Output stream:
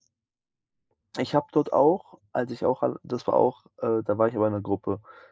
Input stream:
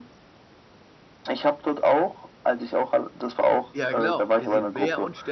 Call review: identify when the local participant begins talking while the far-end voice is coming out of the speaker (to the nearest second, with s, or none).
4 s